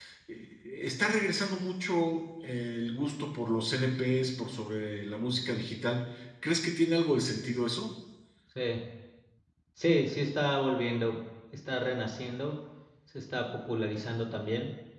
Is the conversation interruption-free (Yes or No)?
Yes